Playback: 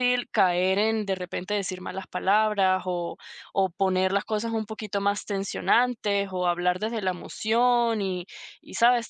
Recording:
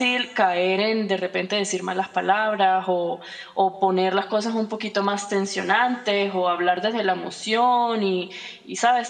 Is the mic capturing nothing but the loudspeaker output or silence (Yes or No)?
Yes